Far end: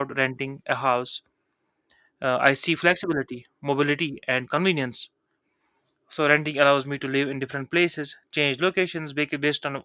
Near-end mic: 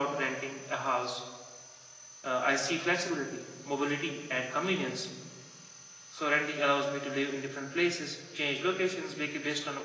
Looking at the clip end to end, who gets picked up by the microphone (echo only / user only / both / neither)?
echo only